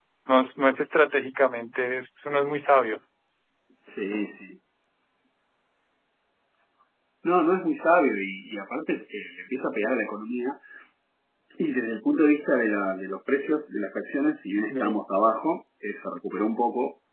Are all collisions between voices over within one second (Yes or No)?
Yes